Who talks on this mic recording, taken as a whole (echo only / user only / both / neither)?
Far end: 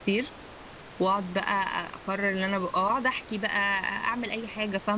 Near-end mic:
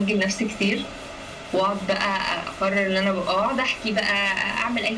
echo only